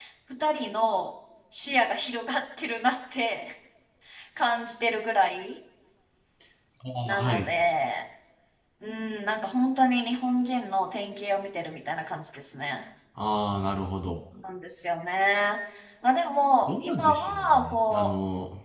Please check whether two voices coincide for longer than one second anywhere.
Yes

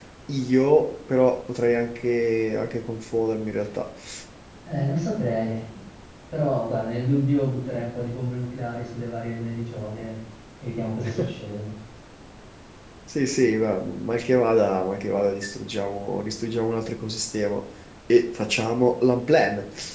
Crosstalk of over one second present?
No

